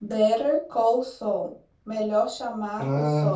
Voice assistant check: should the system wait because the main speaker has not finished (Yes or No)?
Yes